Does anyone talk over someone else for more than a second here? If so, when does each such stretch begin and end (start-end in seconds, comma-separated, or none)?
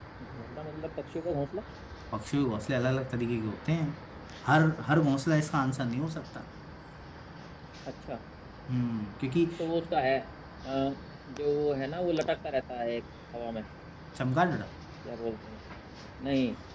none